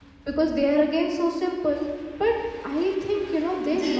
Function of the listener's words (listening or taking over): listening